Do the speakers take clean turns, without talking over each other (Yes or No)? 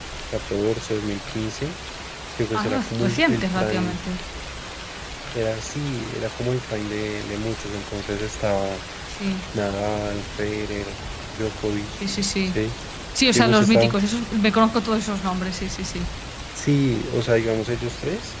No